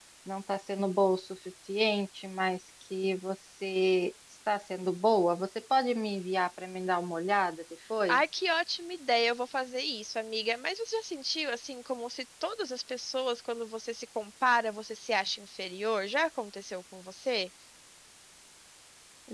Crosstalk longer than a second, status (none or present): none